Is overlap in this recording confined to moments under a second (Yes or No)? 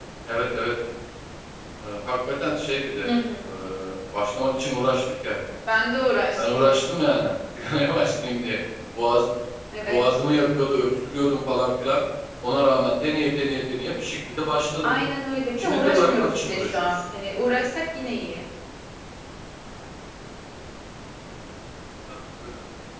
No